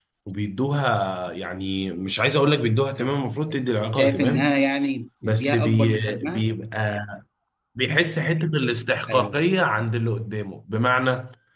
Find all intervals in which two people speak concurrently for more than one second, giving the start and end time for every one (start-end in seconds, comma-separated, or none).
5.2-6.4